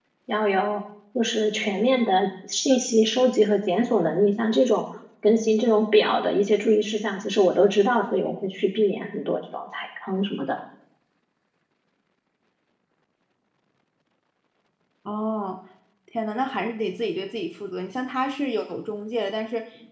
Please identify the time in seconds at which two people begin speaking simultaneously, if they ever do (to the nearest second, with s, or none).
none